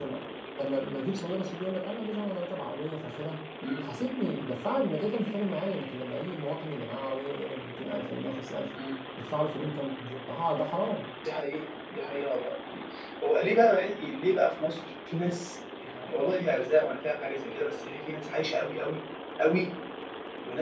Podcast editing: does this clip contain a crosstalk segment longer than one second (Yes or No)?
No